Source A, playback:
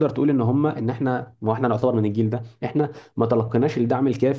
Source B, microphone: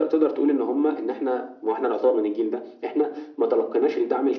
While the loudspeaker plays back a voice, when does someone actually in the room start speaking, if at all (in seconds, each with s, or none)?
none